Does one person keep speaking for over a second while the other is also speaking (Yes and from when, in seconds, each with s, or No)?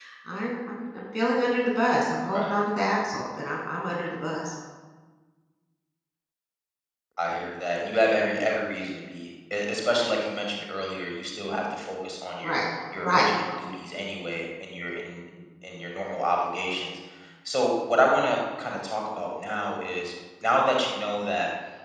No